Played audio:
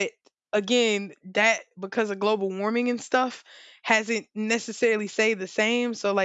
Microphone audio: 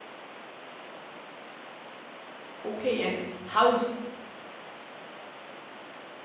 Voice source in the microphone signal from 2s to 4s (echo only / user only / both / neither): user only